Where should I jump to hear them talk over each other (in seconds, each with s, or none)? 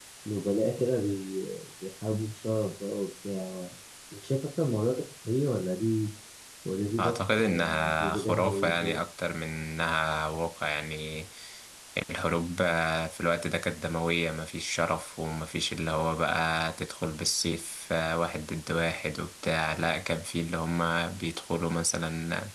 7.0 s